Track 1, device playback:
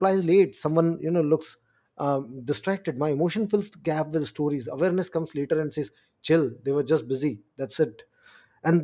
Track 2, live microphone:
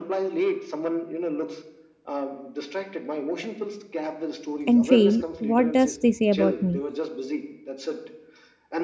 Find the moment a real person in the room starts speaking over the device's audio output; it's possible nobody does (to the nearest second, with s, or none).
5 s